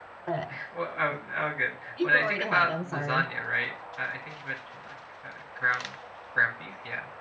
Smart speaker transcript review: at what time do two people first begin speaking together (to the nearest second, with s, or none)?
2 s